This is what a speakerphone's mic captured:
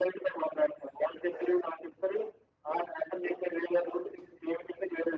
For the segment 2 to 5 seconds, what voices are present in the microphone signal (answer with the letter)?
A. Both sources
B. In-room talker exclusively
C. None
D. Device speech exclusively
D